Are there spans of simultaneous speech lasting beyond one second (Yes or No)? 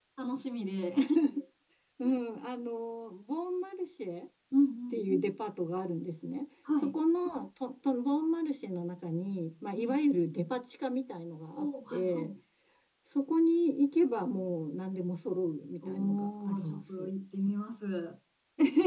Yes